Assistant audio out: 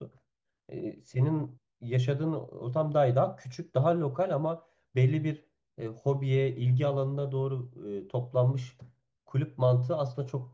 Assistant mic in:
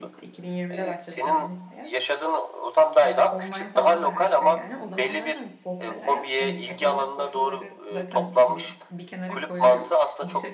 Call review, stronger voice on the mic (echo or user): echo